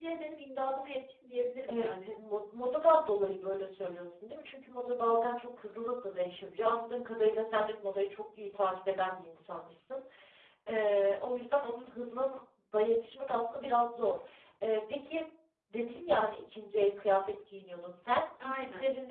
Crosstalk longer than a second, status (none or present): none